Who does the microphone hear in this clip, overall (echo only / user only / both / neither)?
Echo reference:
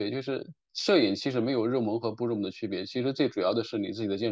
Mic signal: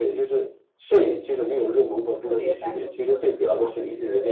both